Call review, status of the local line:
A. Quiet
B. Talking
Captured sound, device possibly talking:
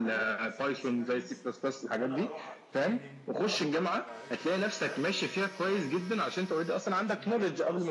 B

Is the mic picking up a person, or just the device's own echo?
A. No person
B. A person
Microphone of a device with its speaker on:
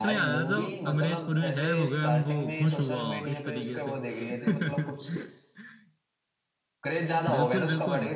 B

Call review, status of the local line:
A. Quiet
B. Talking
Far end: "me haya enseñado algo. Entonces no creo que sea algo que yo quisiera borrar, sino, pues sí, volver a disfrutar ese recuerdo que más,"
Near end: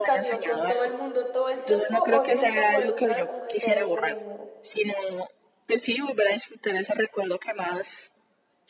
B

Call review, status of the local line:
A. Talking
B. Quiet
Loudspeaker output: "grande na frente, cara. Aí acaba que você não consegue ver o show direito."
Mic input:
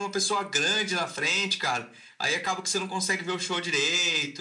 B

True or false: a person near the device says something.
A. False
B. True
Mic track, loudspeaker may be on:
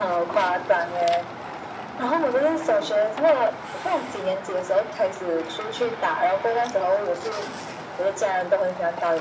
A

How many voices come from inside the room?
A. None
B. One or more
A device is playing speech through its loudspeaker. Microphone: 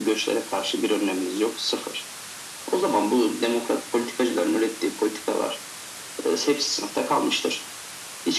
A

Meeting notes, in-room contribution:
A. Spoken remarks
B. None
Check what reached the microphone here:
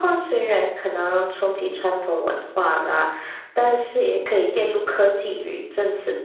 B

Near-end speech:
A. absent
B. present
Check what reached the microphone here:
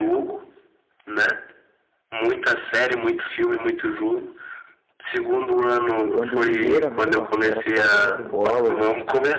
B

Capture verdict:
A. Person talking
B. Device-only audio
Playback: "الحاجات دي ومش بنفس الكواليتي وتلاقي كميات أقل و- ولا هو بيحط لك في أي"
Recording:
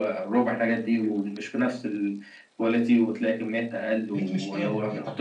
A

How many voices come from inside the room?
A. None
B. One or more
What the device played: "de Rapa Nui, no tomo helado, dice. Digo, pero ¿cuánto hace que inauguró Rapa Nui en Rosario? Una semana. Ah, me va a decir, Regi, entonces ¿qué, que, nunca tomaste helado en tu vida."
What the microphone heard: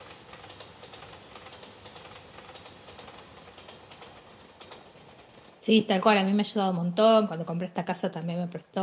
B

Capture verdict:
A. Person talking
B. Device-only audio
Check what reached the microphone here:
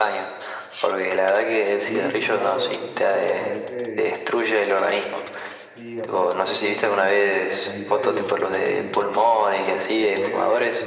A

